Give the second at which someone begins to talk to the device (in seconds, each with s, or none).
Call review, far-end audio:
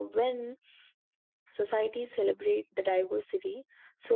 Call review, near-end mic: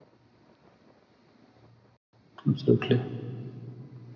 2.5 s